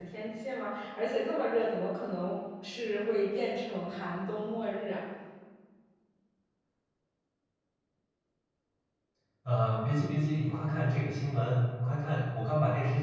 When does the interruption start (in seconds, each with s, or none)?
none